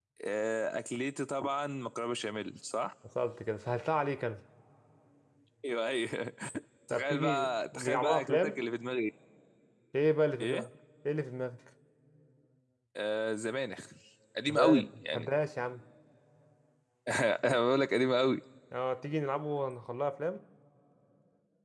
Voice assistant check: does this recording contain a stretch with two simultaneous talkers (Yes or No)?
Yes